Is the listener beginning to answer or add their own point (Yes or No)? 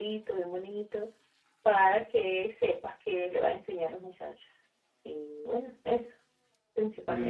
Yes